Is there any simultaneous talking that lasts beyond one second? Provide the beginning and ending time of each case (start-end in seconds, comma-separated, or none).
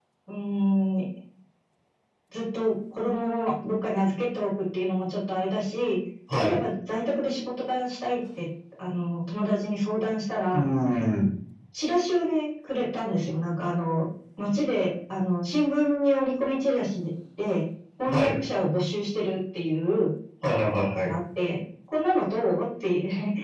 none